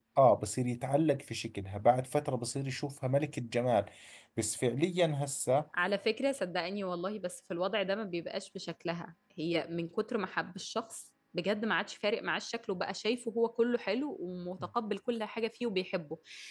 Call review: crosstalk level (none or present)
none